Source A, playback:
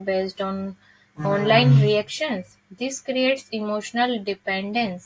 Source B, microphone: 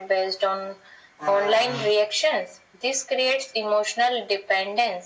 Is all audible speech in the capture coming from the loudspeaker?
Yes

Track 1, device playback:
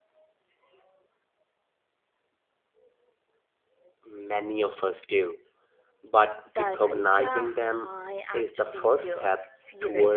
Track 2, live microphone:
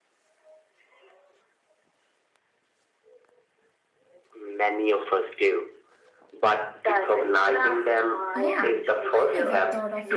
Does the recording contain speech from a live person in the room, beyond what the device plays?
Yes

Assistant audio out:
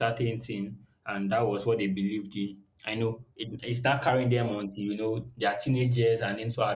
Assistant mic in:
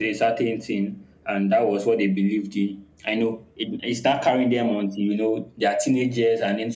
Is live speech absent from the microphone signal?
Yes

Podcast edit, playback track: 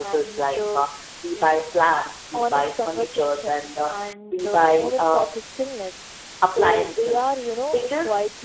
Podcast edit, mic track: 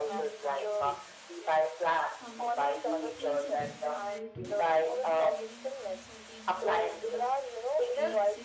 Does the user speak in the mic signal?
Yes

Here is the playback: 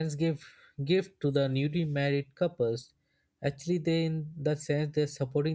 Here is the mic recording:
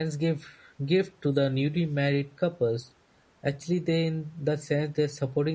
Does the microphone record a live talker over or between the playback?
No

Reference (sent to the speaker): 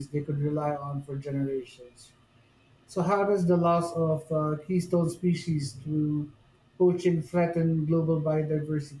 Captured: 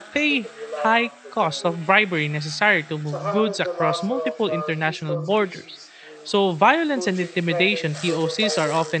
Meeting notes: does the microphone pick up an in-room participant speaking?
Yes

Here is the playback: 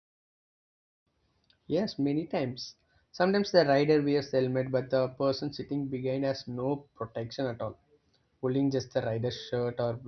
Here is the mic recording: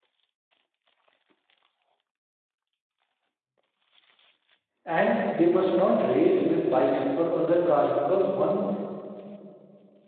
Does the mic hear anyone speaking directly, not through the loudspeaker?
Yes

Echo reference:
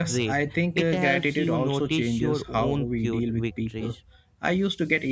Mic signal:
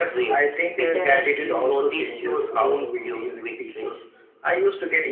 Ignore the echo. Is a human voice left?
No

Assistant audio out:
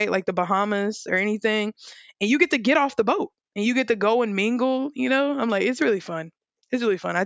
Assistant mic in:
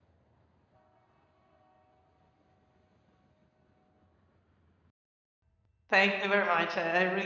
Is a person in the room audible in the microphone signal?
Yes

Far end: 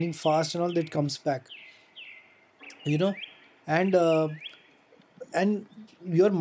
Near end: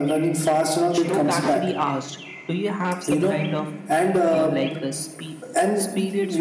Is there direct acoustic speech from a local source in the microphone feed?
Yes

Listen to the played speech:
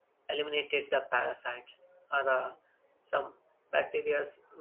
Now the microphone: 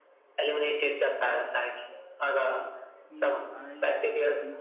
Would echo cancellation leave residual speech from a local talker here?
Yes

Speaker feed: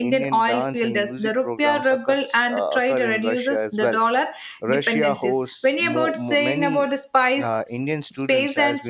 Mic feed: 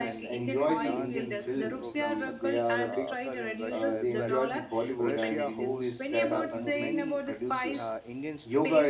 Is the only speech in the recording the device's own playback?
No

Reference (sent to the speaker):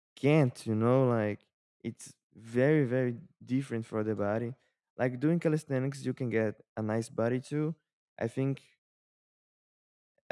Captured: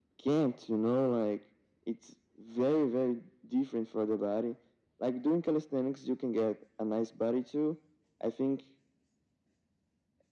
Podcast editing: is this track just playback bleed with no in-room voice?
Yes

